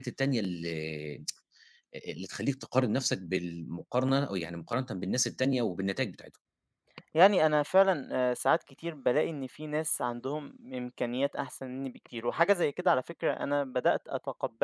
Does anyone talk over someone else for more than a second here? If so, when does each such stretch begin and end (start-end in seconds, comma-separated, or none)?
none